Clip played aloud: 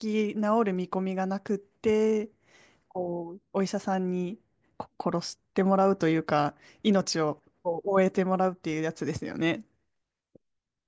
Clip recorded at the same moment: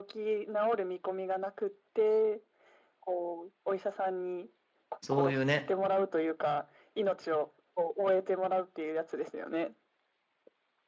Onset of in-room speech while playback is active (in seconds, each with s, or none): 5.0 s